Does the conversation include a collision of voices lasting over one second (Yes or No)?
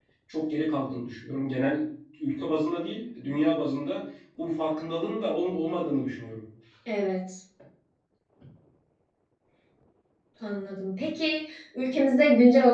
No